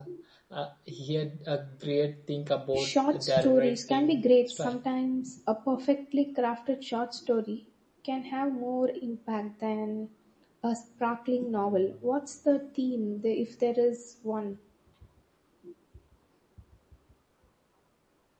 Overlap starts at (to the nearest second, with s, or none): 3 s